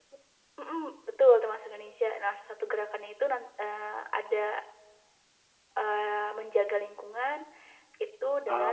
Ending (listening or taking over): listening